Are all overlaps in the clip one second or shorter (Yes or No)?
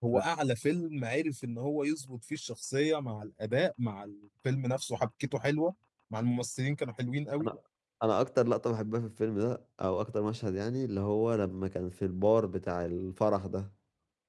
Yes